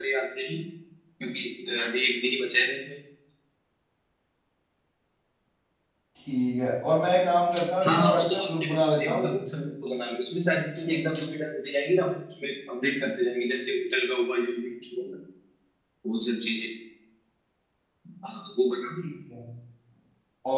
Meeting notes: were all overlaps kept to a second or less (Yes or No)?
No